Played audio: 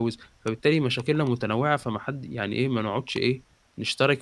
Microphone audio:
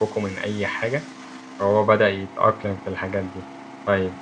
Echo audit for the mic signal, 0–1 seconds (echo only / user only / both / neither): user only